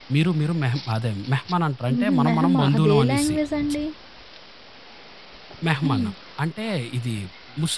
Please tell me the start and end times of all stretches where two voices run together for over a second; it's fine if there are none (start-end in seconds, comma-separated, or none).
1.9-3.4